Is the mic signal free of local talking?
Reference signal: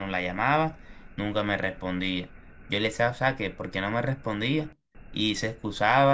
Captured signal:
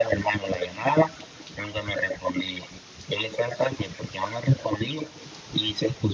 Yes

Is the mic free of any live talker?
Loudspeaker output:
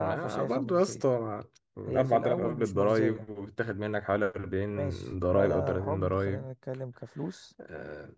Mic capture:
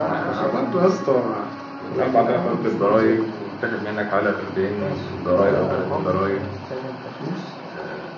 Yes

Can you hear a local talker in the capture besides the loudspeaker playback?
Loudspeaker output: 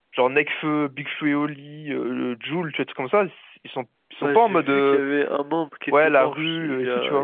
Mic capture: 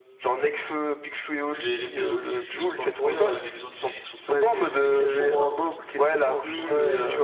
Yes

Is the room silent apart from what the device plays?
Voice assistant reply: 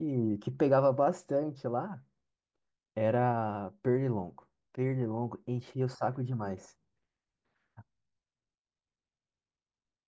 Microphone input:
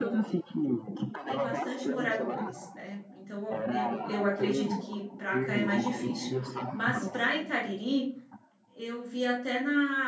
No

